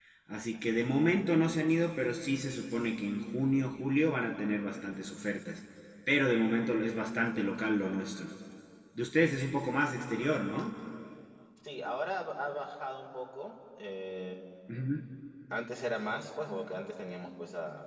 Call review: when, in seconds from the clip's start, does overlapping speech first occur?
none

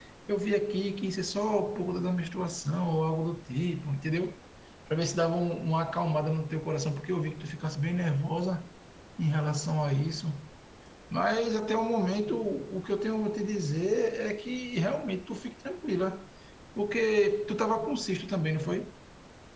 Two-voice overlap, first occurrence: none

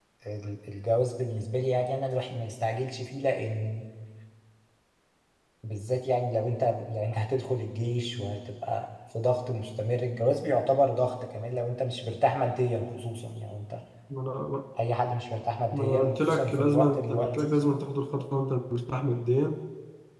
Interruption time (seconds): 16 s

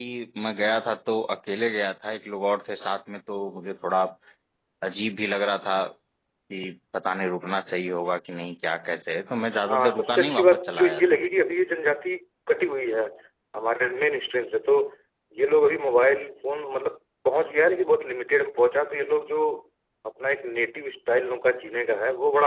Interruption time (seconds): 10 s

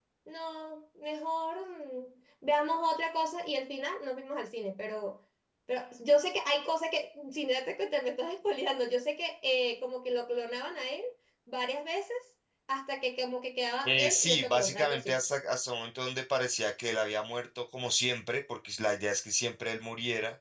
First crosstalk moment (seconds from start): 14 s

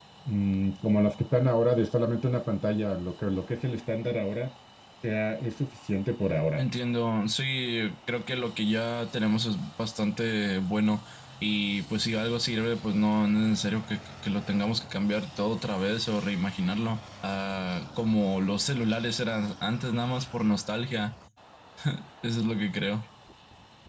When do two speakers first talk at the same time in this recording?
none

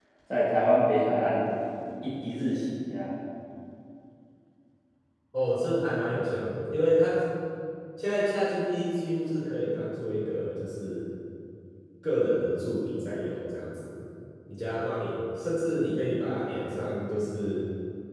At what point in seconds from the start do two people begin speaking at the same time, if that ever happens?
none

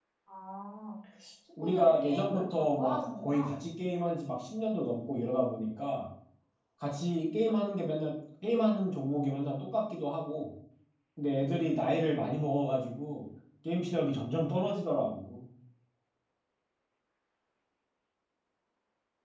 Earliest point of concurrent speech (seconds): 2 s

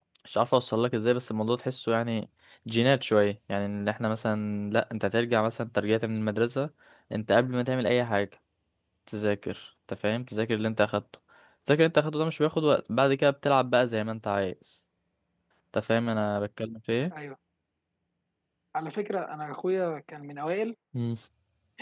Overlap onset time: none

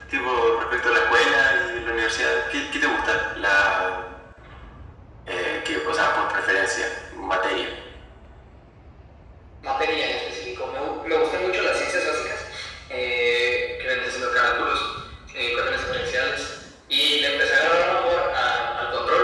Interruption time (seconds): none

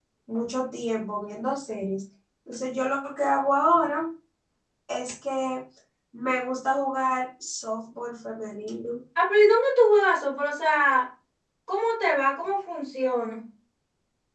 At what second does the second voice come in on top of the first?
none

